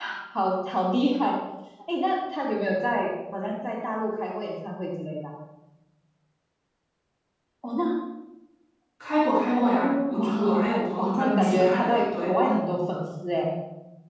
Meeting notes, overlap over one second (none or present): present